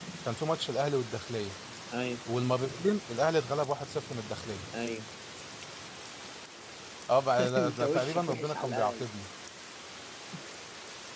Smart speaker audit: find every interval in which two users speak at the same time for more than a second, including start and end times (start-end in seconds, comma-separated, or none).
7.6-9.1